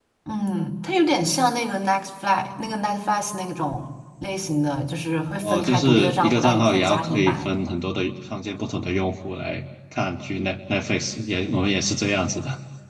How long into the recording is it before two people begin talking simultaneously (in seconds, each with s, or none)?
5.3 s